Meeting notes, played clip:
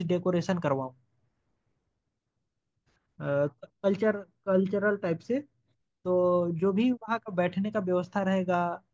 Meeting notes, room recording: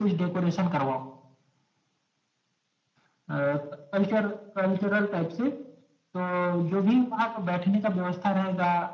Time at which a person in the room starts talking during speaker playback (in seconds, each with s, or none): none